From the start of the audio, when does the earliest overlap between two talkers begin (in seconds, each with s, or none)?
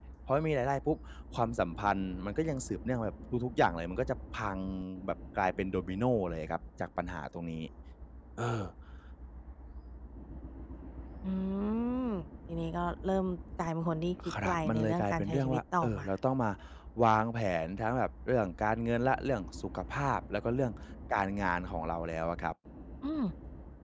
14.4 s